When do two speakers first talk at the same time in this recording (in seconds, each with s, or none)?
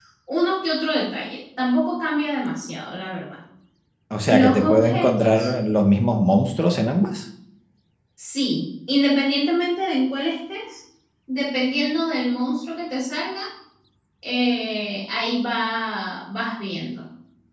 4.2 s